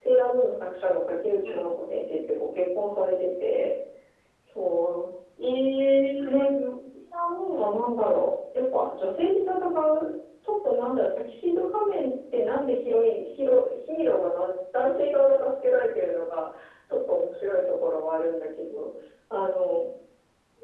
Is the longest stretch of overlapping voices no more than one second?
Yes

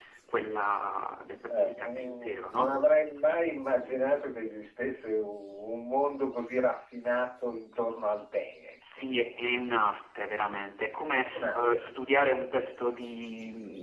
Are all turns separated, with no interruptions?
No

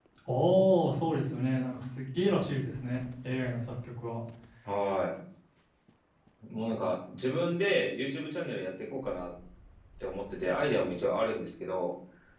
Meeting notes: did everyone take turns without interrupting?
Yes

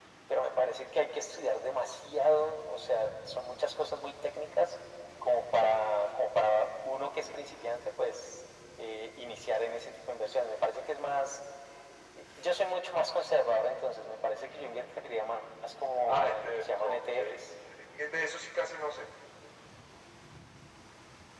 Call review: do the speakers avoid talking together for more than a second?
No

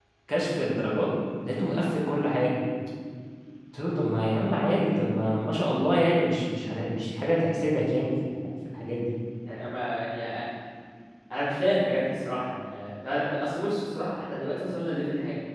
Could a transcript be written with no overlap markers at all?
Yes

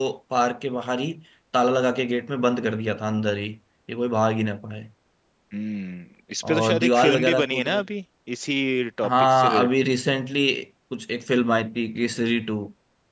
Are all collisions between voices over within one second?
No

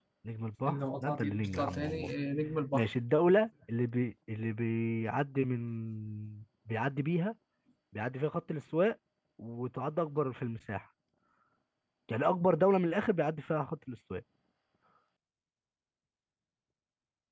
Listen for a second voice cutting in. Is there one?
Yes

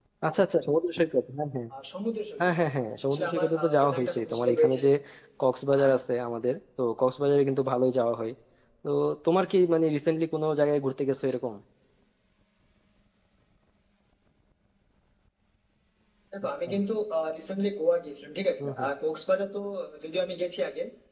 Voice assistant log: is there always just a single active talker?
No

